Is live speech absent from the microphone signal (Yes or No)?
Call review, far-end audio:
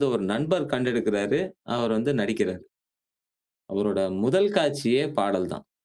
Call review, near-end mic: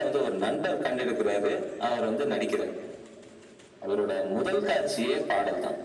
Yes